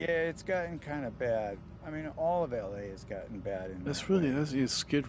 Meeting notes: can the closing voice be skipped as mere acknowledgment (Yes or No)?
No